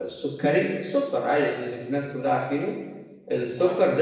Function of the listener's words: listening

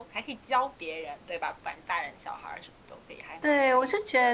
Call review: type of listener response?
taking over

